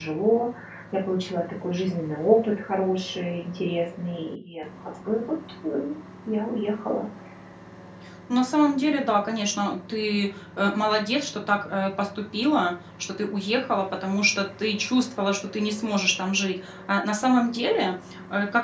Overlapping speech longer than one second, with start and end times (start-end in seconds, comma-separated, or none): none